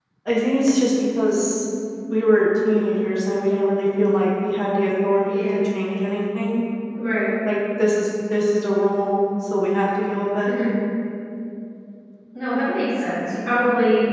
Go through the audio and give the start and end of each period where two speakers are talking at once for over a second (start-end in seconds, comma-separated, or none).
none